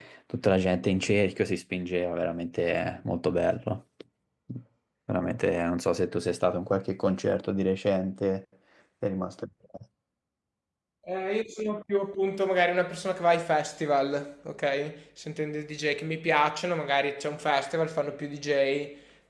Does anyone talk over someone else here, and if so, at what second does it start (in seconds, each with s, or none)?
none